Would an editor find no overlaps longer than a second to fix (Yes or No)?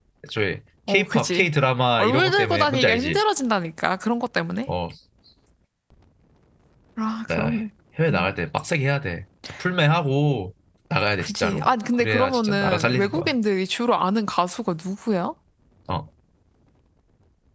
No